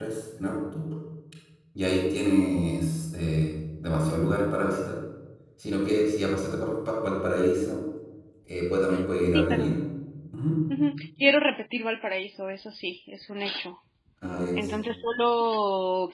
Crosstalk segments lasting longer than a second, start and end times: none

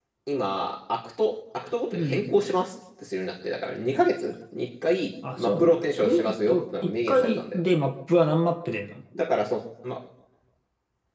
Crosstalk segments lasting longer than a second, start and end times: 5.4-7.6

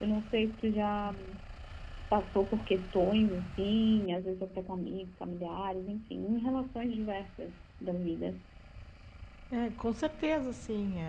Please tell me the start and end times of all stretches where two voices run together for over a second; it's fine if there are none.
none

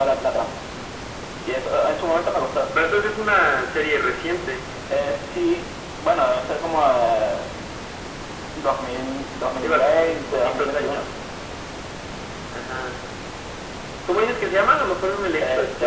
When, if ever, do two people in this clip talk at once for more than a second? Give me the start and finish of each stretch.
9.6-11.1

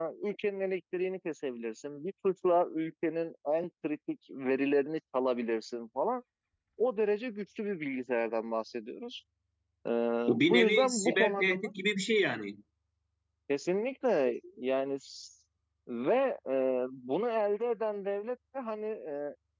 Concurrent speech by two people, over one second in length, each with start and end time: 10.3-11.7

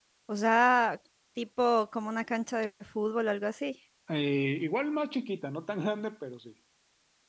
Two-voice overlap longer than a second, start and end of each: none

